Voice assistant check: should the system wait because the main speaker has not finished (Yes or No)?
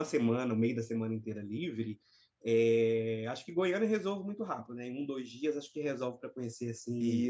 Yes